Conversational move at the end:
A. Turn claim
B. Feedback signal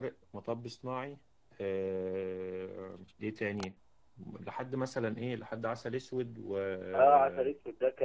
A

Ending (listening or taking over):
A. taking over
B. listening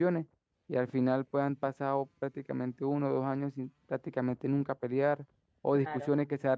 B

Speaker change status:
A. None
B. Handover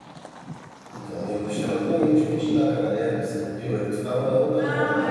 B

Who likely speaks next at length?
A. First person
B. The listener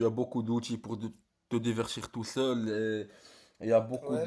A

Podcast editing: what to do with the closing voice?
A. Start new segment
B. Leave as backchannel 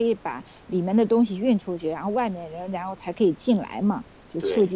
B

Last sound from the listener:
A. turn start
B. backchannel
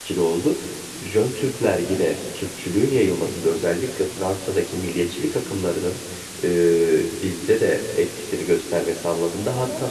B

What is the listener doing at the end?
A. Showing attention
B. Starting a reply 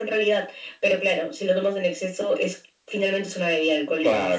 B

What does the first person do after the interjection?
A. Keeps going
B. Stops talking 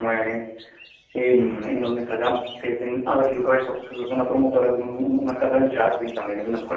A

